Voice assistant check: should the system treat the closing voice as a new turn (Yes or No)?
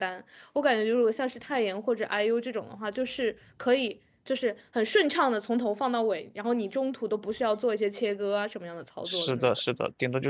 Yes